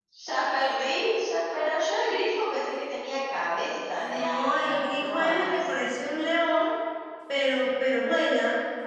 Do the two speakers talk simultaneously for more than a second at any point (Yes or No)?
Yes